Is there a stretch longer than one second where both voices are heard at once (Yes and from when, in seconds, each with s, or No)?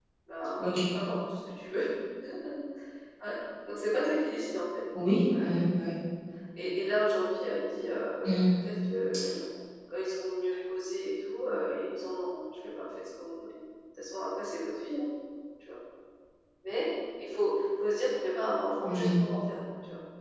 No